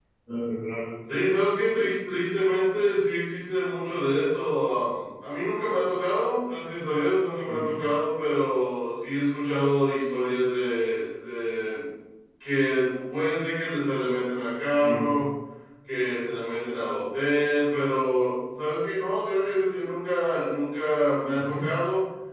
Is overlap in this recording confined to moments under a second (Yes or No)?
Yes